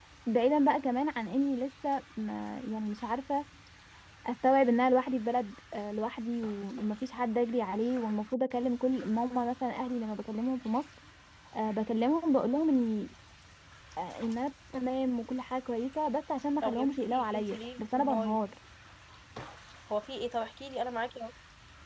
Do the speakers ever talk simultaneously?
Yes, from 16.6 s

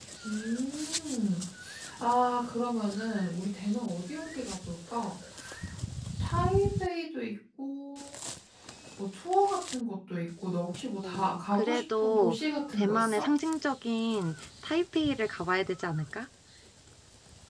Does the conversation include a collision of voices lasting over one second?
Yes, from 11.0 s

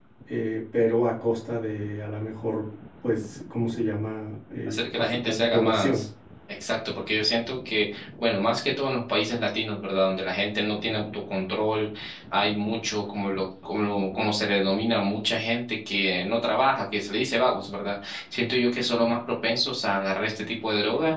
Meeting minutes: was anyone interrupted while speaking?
Yes, from 4.7 s

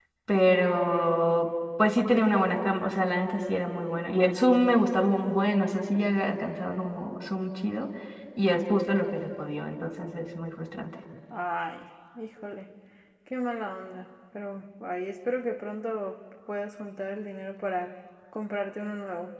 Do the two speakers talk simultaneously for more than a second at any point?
No

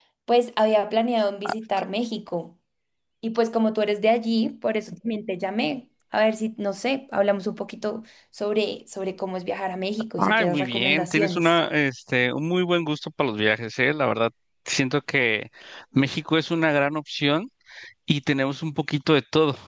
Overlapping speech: Yes, from 10.2 s

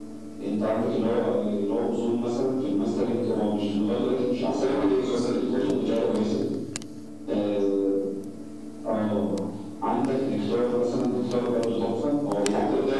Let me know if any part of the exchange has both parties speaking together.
Yes, from 4.5 s

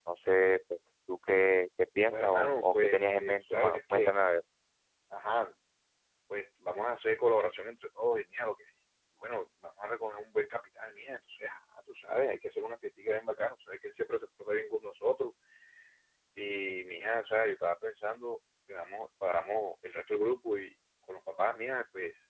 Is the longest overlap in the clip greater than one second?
Yes, from 2.1 s

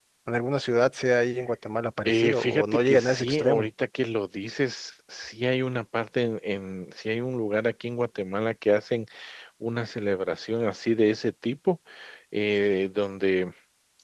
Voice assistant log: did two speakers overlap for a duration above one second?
Yes, from 2.0 s

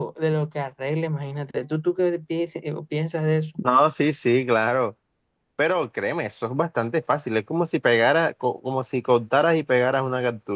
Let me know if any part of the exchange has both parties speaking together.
No

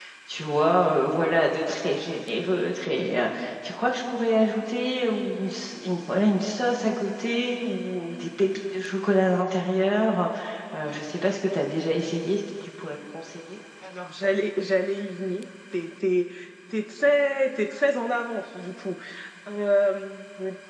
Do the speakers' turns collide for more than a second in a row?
No

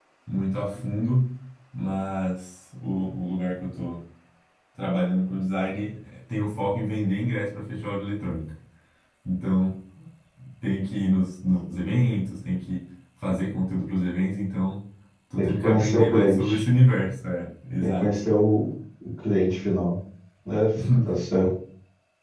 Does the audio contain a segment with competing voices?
Yes, from 15.4 s

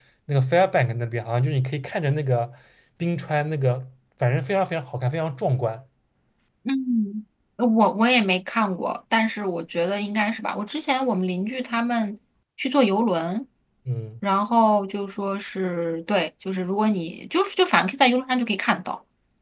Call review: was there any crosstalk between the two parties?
No

